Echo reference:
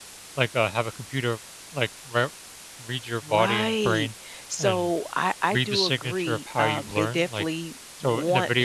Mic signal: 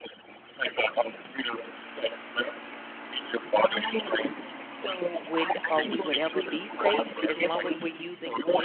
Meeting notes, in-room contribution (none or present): present